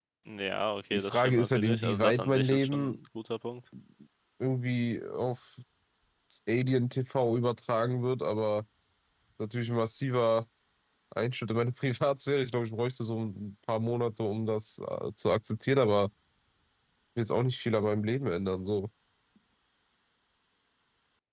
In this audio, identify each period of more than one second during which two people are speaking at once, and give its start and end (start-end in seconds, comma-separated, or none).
0.9-3.0